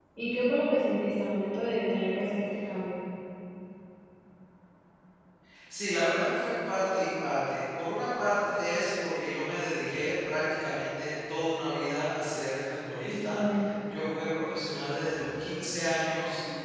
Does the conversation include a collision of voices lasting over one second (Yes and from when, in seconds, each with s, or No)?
No